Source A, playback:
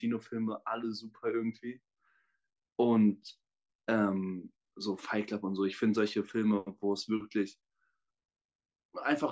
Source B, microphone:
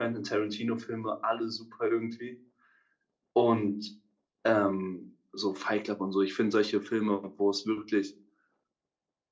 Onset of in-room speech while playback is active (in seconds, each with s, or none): none